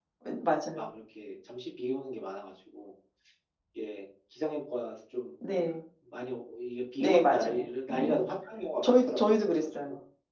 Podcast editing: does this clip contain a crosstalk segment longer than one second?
Yes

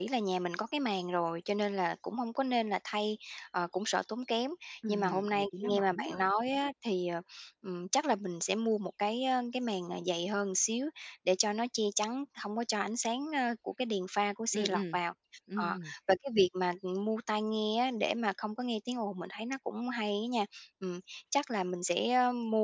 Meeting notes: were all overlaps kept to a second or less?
No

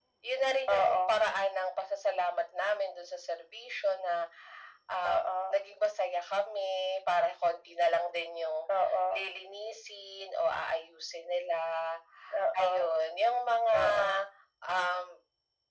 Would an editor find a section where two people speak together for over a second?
No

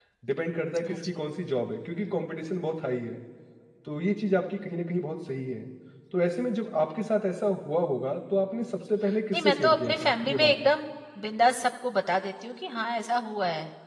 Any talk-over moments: Yes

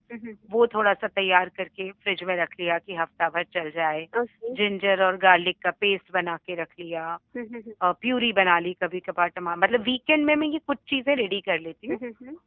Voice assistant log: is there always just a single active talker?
Yes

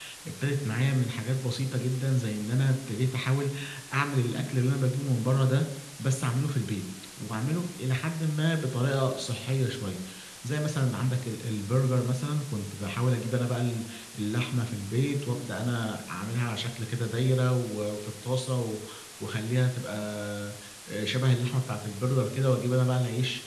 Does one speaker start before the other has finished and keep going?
No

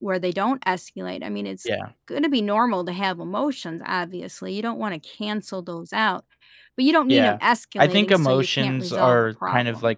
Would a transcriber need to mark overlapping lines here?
Yes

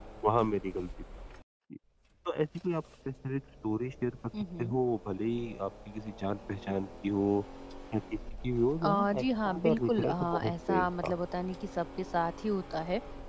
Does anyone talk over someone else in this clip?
Yes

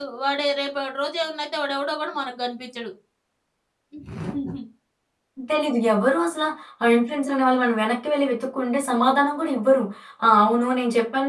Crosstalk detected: No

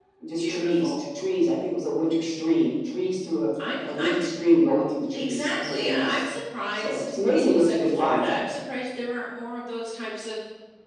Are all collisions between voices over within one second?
No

